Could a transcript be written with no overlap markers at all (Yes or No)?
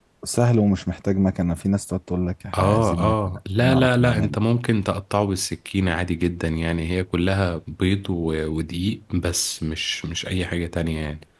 No